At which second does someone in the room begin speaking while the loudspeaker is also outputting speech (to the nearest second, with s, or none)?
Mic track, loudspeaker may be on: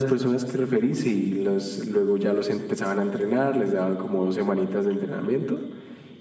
none